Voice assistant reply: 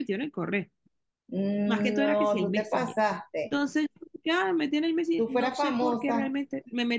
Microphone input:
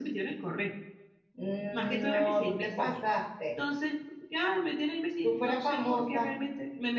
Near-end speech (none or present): none